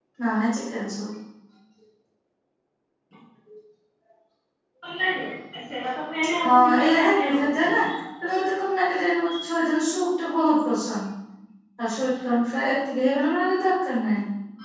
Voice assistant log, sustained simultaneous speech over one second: present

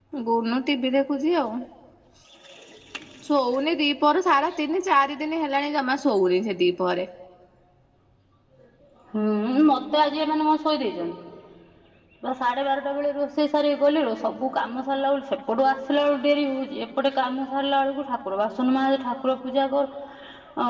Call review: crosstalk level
none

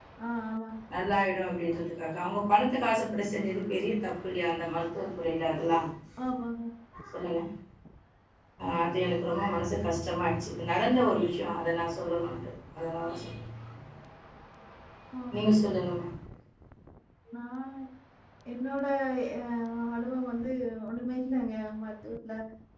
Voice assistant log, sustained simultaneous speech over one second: none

